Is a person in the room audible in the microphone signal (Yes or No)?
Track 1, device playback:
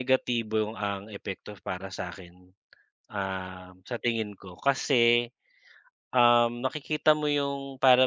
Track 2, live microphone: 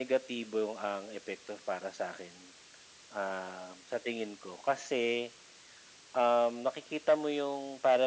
No